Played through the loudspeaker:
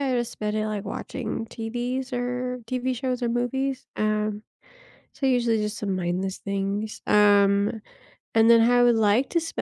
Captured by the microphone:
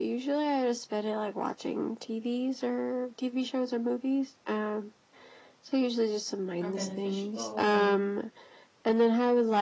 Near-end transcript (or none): are beneficial and